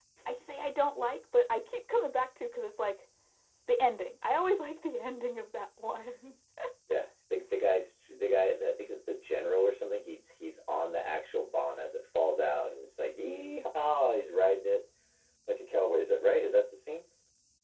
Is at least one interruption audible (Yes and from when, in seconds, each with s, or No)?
No